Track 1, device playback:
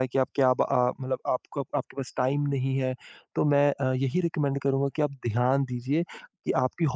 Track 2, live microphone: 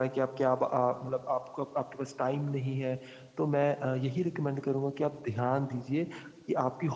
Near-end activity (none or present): none